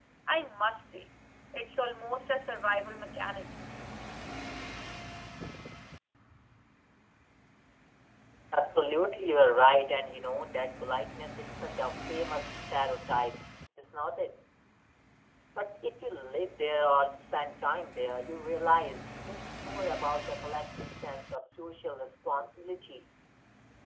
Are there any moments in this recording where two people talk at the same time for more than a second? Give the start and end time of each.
none

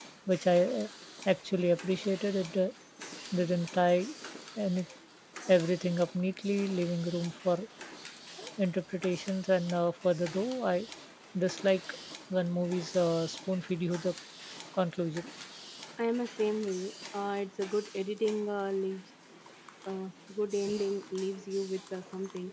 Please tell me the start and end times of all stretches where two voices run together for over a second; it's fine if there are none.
none

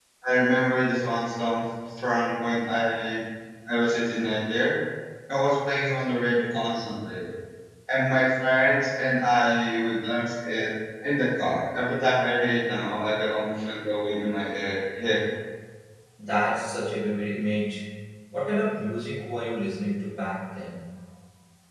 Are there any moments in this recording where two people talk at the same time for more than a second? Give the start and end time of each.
none

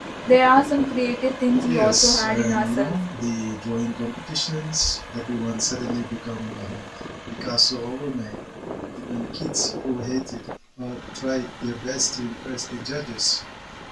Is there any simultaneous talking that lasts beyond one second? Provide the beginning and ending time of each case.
1.6-2.9

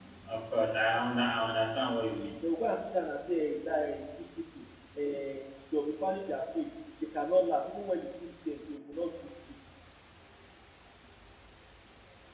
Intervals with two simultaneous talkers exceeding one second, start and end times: none

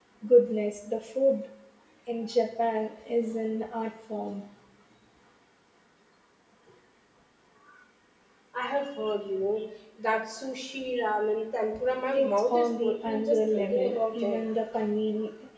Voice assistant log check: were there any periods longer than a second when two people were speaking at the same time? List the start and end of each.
12.1-14.4

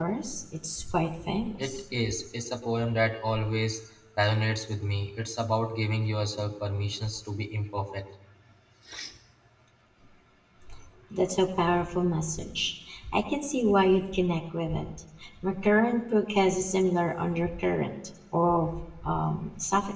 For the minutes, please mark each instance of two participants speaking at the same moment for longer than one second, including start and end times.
none

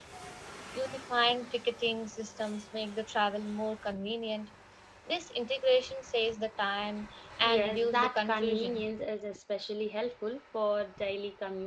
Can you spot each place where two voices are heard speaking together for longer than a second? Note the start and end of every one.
7.4-8.9

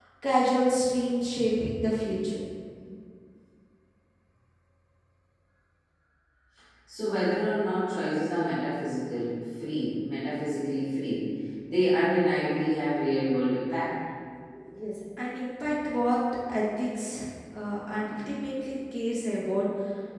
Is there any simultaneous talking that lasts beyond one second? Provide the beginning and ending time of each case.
none

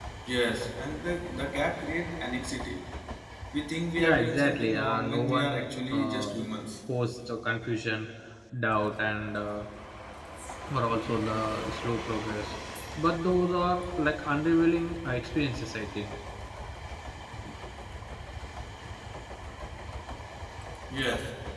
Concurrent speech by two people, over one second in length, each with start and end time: 4.0-6.4

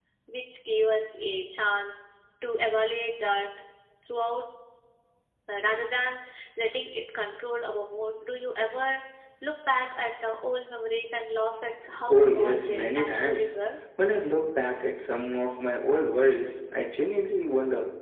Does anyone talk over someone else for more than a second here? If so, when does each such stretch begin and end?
12.1-13.5

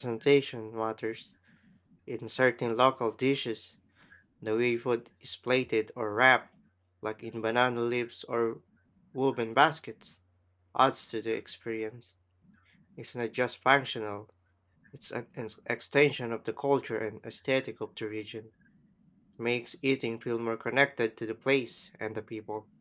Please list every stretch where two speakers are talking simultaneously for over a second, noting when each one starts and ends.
none

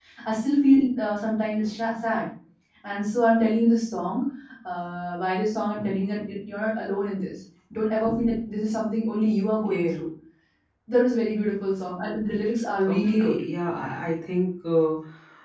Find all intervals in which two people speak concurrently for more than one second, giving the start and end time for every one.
none

